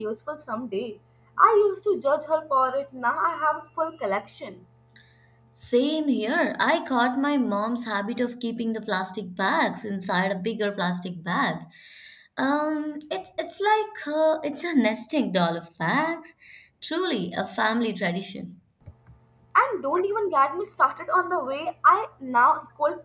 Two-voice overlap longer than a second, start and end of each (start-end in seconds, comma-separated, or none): none